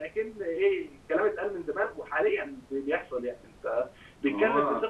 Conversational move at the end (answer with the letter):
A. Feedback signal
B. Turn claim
A